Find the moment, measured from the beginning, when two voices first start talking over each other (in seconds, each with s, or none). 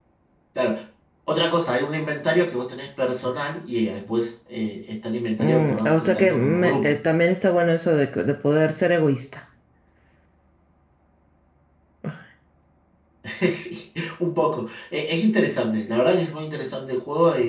5.3 s